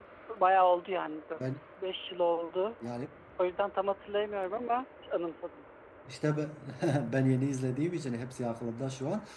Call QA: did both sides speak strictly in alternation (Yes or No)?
Yes